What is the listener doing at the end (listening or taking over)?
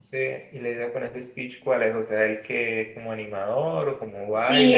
taking over